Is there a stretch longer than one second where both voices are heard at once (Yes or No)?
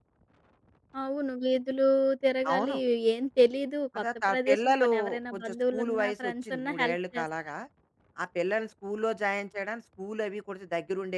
Yes